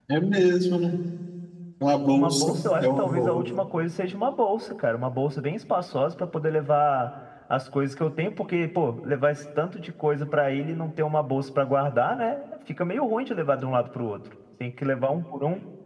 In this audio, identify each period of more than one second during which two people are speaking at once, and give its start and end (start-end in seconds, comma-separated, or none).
2.1-3.4